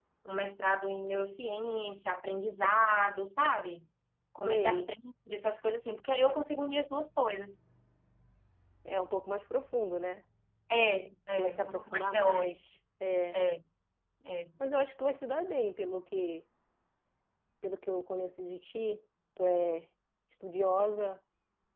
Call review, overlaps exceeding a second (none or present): present